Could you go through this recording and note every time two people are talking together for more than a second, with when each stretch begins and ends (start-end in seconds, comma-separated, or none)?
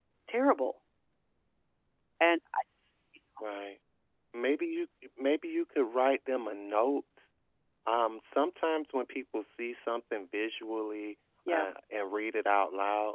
none